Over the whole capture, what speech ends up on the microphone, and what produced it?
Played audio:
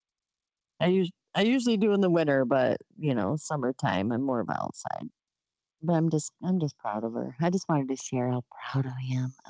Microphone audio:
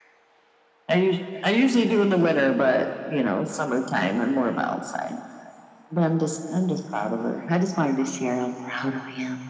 echo only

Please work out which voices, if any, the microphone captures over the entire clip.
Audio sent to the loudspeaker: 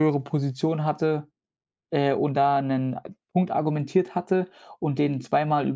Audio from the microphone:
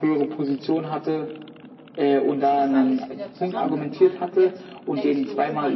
both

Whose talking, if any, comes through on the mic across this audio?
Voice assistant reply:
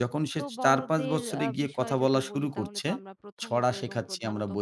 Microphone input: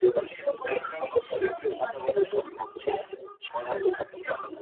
echo only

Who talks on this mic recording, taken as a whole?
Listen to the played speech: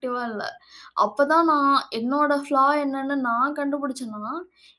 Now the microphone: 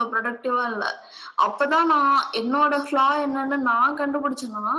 echo only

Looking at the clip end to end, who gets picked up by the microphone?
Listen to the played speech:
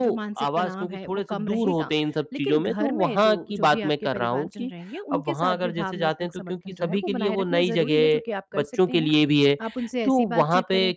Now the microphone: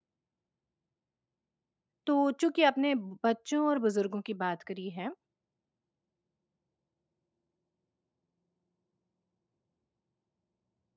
user only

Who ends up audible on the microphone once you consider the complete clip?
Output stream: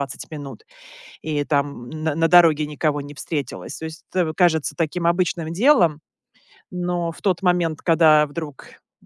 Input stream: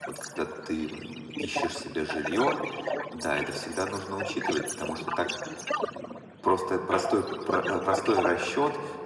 both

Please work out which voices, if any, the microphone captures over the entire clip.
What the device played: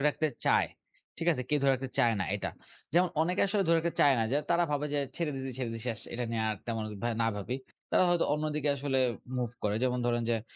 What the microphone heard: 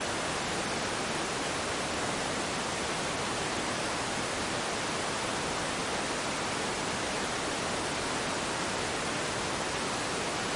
neither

